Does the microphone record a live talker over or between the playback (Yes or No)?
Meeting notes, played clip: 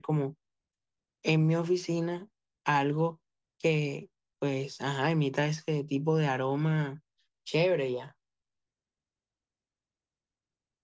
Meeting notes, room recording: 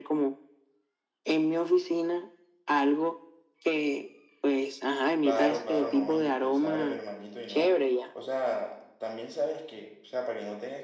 Yes